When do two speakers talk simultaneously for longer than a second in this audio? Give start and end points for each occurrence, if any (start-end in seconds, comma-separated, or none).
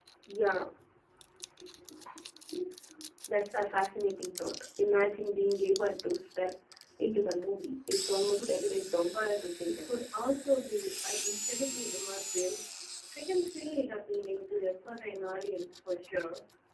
8.2-10.0